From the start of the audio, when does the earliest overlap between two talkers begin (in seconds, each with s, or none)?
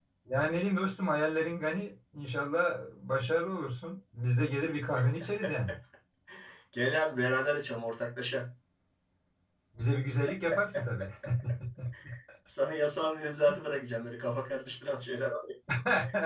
none